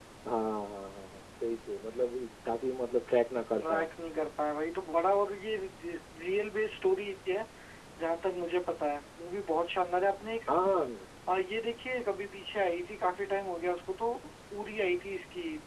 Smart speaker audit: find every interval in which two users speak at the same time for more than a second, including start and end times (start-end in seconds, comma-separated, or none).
none